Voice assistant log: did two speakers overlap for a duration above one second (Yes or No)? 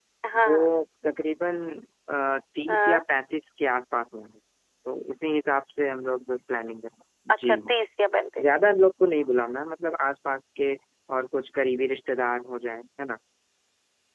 No